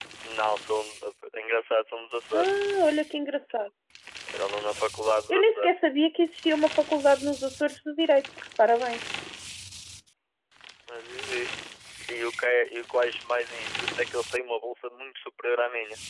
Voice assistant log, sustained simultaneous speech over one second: none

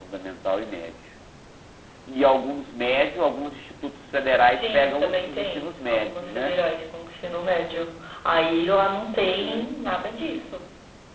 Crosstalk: present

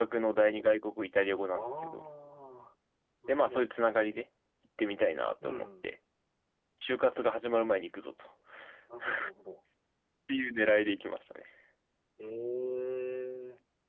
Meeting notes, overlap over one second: none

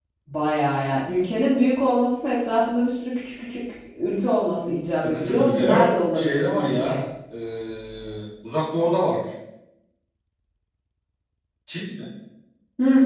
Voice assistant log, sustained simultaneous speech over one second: present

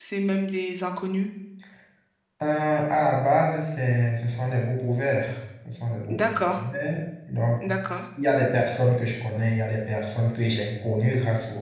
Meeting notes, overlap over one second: none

